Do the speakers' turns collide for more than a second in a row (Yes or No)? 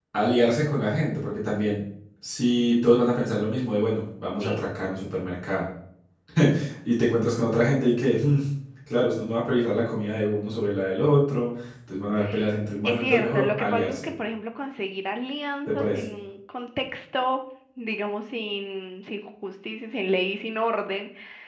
Yes